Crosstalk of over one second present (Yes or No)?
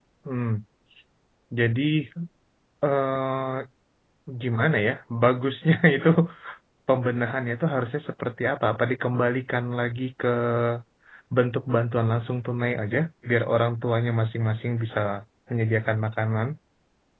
No